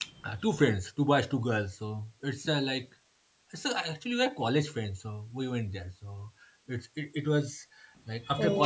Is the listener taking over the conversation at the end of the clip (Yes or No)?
Yes